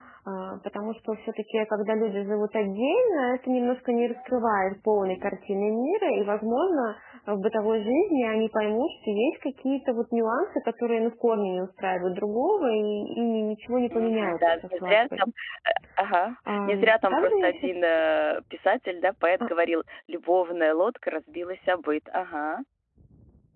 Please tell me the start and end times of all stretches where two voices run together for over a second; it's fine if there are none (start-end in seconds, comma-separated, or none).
13.9-15.2, 16.5-17.7